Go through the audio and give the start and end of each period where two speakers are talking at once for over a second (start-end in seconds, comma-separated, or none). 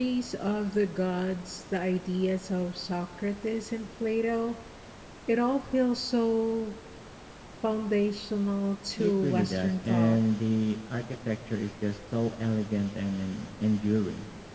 9.0-10.2